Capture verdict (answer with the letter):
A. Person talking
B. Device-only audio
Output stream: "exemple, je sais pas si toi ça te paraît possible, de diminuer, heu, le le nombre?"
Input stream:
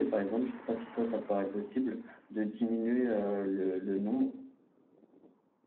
B